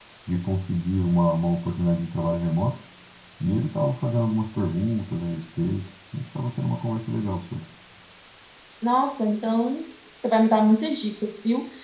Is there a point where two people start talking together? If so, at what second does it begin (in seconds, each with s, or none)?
none